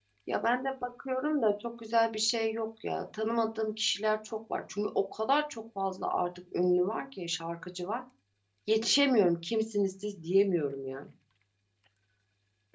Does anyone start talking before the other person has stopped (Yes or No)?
No